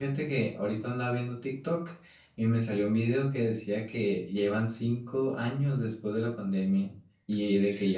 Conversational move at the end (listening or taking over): listening